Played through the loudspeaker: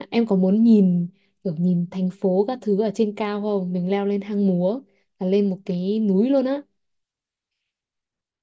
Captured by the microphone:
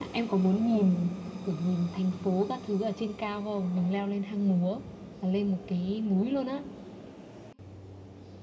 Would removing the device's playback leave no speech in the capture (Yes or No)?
Yes